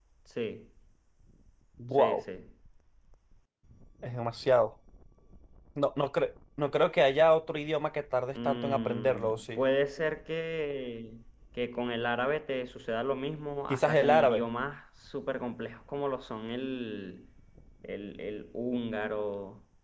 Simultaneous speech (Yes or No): Yes